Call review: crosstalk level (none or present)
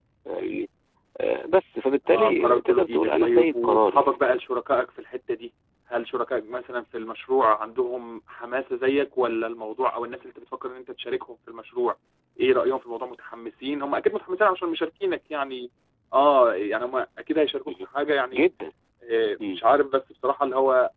present